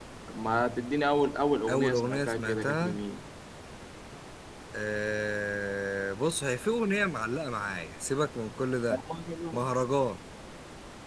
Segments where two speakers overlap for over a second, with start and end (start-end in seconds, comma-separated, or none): 1.7-3.0